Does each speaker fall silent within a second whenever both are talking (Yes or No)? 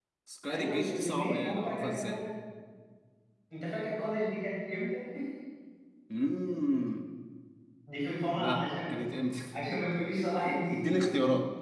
No